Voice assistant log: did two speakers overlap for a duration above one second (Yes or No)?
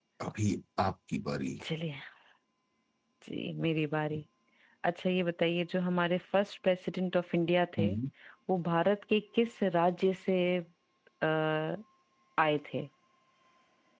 No